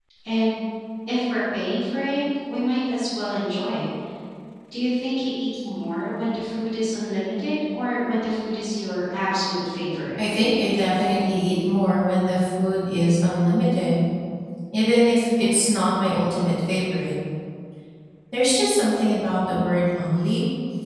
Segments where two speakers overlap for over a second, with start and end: none

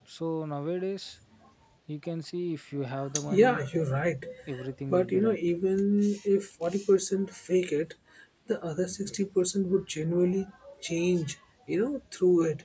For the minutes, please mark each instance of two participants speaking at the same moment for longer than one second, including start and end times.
none

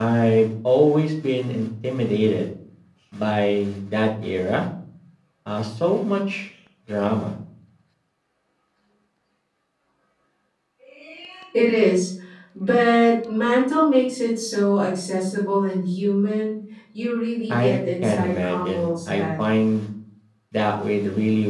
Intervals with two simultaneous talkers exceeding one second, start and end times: 17.5-19.5

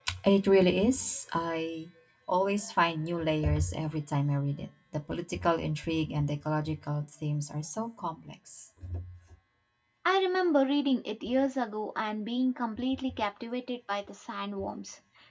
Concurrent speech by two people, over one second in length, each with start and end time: none

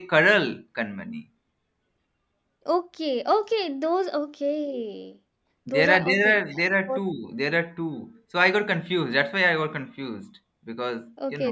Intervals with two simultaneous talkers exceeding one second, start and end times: 5.7-7.0

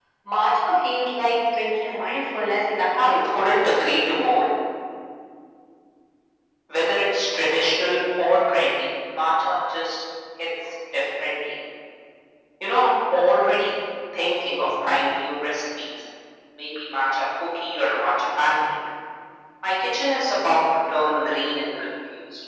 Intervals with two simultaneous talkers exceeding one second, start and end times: none

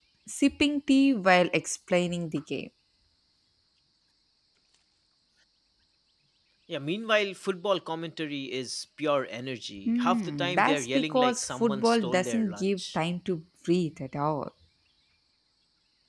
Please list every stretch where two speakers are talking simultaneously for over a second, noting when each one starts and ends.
9.9-13.0

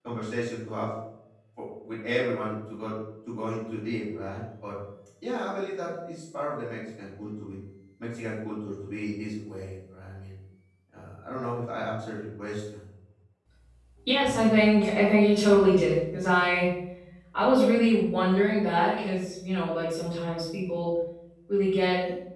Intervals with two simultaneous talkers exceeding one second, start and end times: none

